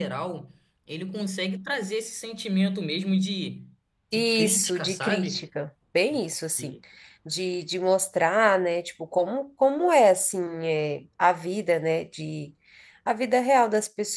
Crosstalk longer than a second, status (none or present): present